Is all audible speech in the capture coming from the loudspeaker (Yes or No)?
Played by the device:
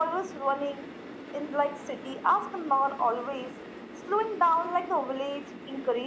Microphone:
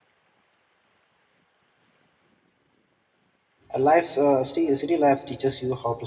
No